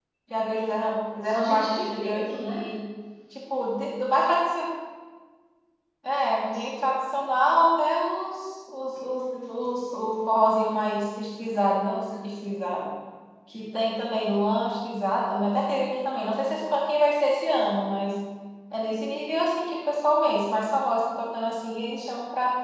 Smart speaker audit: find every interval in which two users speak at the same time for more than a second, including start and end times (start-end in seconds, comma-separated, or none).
1.2-2.7